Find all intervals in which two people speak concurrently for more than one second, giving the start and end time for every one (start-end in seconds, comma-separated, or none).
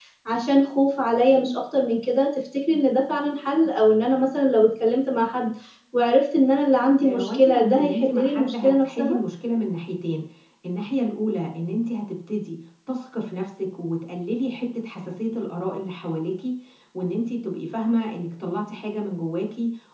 7.0-9.2